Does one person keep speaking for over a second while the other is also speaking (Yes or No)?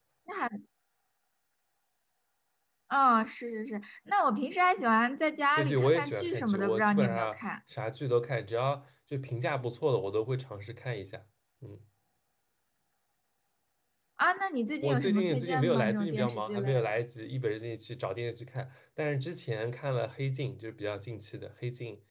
Yes